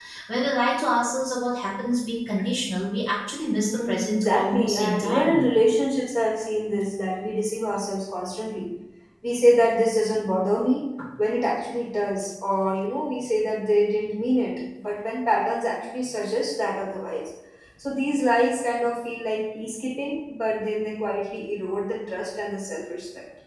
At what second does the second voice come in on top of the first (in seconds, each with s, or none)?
3.7 s